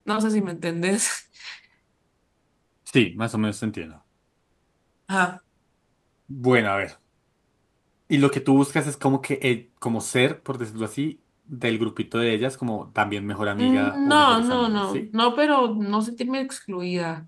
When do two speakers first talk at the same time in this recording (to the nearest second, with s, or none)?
14 s